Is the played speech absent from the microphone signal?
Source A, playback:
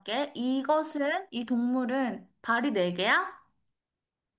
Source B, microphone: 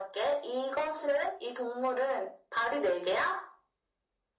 No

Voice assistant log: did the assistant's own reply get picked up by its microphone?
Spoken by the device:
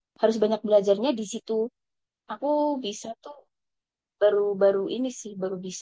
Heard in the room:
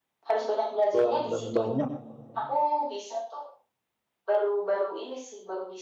Yes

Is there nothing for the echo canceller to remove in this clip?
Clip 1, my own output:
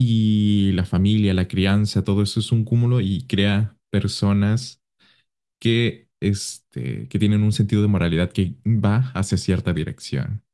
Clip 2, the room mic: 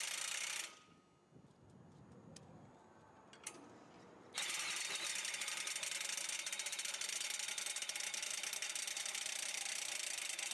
Yes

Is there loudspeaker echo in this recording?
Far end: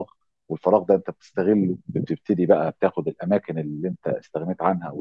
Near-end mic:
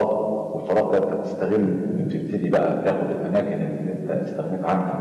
Yes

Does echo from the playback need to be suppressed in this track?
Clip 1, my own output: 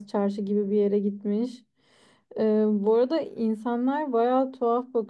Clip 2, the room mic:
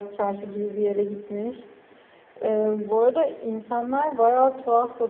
Yes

